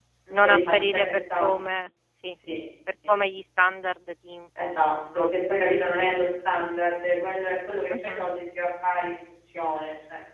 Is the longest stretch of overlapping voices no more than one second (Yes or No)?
No